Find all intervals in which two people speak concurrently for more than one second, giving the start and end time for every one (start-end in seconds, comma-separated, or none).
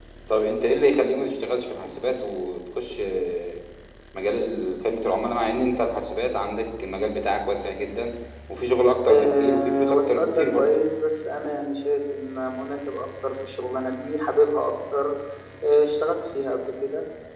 9.1-10.7